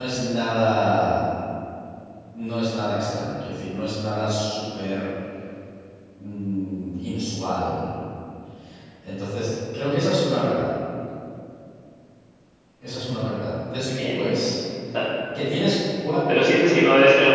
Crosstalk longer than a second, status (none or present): none